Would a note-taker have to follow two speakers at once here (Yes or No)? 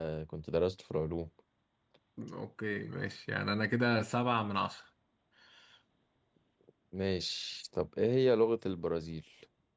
No